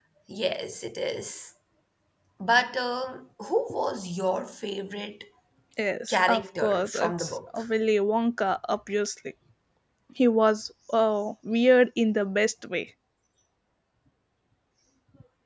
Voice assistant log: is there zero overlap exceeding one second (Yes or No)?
No